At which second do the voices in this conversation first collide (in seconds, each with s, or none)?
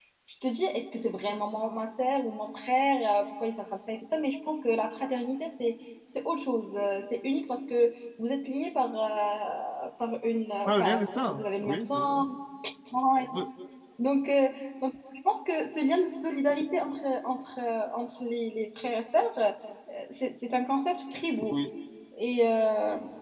10.6 s